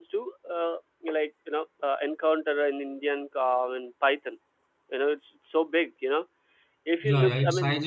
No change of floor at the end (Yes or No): No